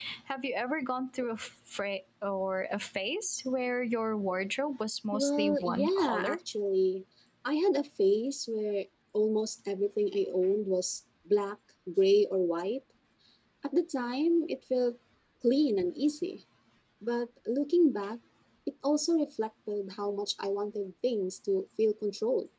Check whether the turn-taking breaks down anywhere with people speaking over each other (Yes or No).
Yes